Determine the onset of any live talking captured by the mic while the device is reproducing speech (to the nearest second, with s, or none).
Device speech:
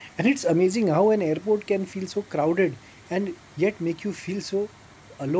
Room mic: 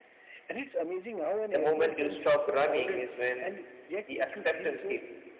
2 s